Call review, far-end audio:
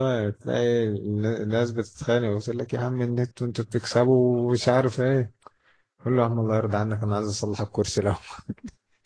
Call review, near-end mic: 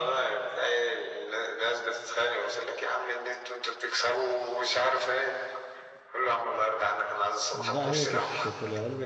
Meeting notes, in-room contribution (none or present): present